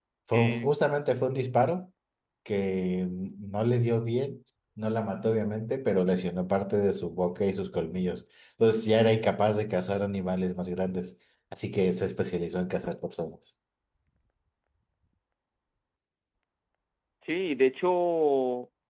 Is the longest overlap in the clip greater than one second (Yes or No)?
No